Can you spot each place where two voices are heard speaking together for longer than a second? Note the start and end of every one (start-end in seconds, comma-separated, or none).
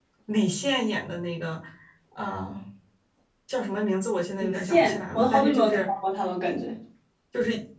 4.4-5.9